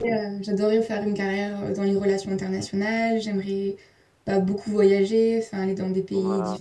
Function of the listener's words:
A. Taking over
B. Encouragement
B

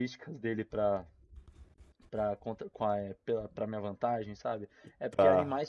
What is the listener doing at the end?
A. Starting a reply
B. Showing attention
B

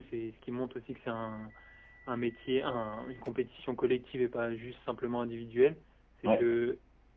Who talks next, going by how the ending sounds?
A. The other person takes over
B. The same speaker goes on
B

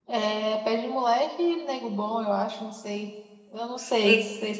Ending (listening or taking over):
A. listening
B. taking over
B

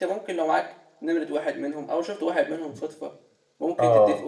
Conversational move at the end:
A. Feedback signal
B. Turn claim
A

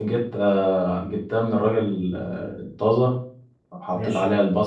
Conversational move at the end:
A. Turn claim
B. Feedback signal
B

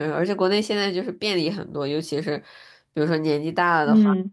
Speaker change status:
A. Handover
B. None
B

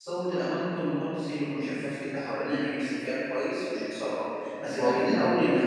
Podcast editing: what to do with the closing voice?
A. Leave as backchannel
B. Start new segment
A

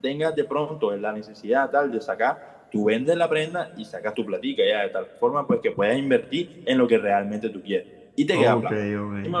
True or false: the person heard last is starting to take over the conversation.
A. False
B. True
B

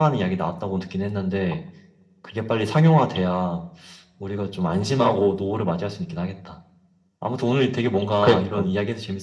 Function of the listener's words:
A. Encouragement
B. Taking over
A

